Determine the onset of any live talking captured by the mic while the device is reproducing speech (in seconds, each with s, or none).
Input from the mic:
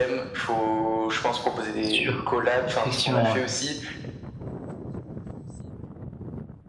1.8 s